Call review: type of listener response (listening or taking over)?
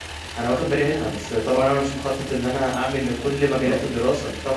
listening